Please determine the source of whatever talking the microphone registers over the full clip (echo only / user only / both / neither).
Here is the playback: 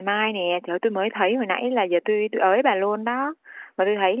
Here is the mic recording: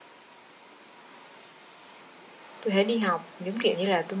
user only